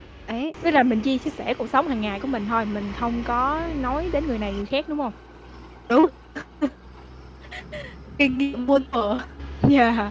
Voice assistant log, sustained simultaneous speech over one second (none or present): none